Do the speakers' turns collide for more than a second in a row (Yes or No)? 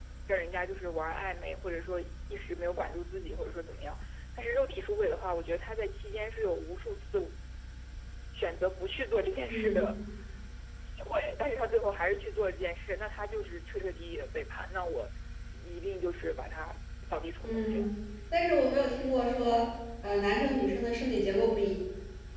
No